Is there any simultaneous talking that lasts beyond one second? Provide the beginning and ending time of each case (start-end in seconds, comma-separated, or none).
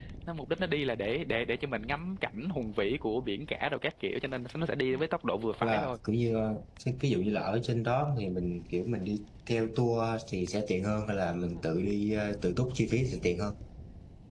none